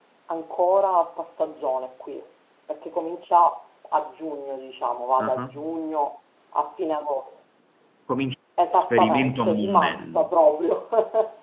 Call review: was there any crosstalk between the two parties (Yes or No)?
Yes